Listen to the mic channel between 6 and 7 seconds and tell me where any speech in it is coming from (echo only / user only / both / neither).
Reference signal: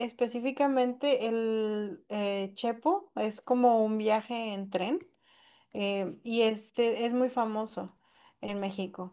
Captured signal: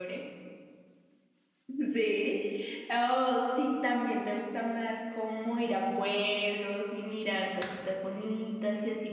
user only